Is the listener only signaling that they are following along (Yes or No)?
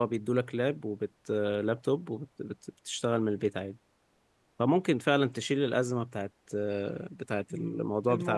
No